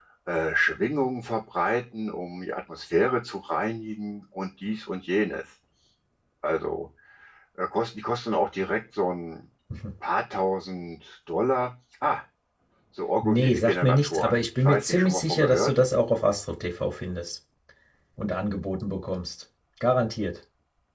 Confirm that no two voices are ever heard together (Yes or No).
No